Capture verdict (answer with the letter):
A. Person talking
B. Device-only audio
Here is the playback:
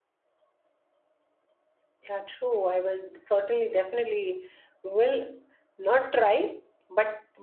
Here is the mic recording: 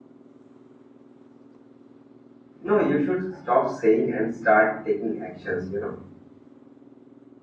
A